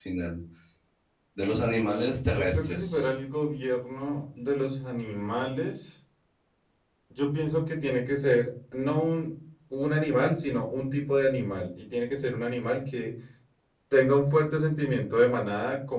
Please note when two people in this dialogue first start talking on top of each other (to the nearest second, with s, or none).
2 s